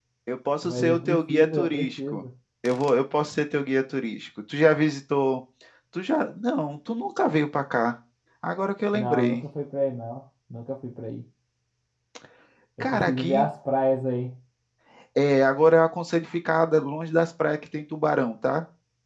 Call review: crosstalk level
present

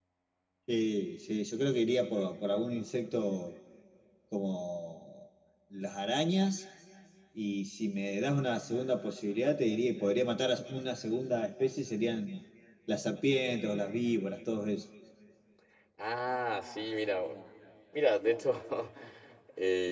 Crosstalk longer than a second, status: none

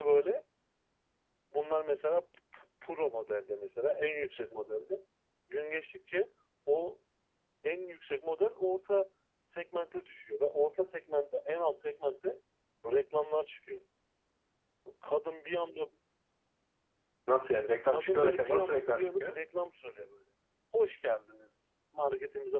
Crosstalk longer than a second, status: present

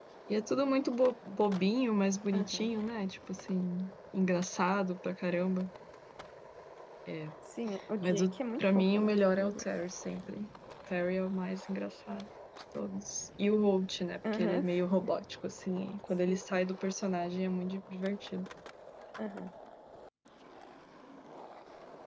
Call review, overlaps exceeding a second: present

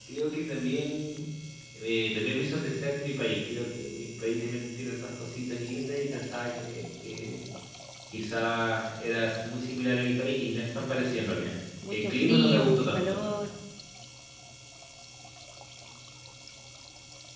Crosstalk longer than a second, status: present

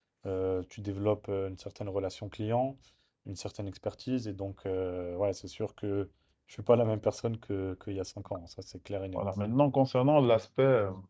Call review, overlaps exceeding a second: none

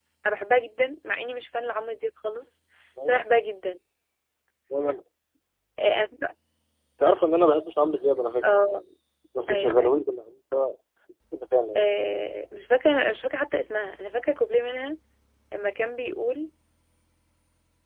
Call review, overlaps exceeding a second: none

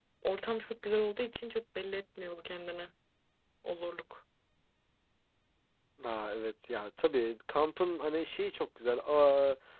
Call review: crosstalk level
none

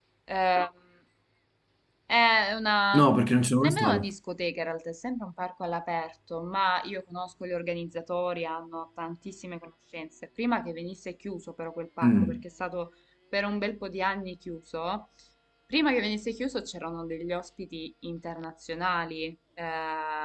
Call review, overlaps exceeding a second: none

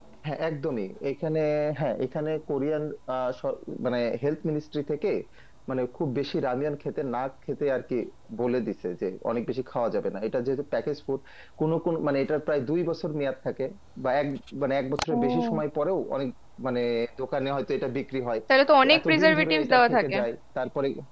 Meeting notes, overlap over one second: present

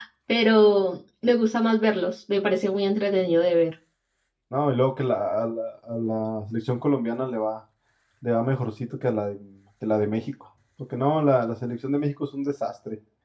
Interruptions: none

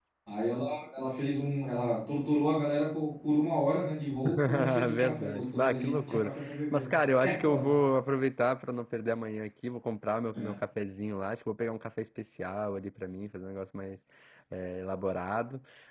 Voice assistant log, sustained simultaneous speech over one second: present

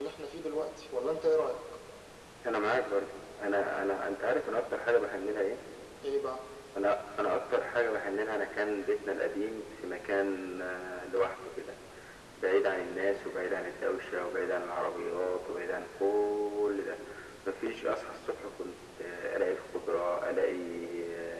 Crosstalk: none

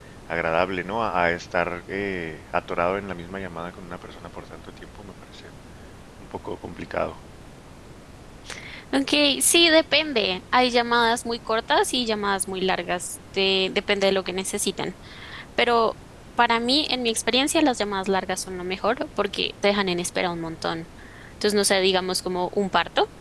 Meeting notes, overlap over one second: none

